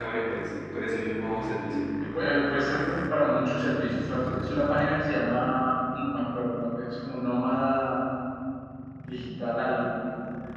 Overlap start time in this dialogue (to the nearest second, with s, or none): none